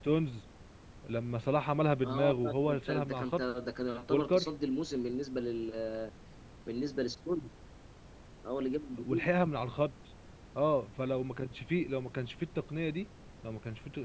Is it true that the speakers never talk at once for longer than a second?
No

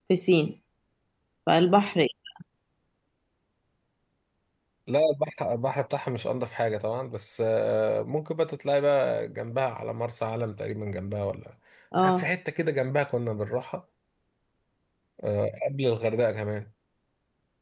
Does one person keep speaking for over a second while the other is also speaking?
No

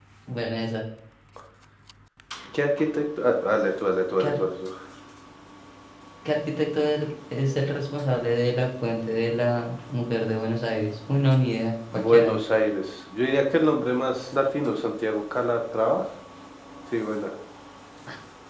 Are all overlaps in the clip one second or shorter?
Yes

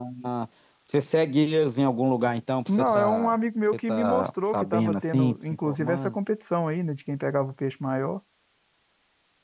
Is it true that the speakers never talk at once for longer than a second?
No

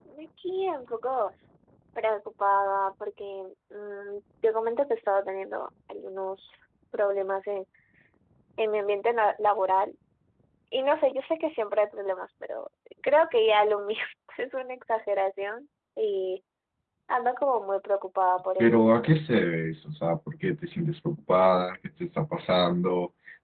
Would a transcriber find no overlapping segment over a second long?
Yes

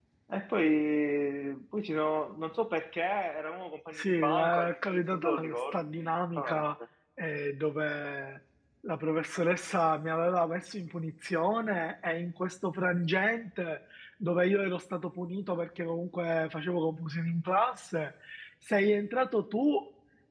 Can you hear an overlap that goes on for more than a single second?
Yes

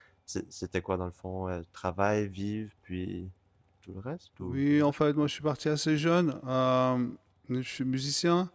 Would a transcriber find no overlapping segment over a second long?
Yes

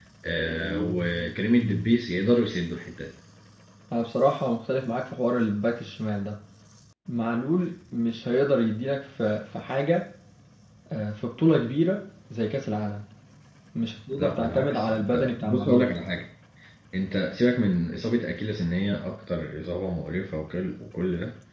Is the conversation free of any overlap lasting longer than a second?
No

